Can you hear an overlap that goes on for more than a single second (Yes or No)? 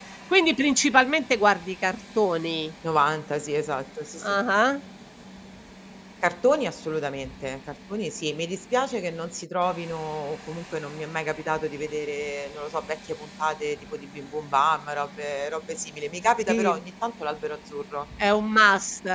No